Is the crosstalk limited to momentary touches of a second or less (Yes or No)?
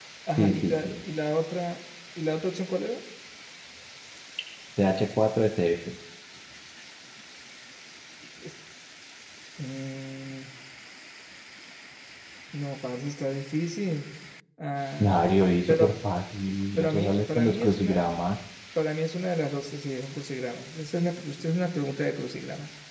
No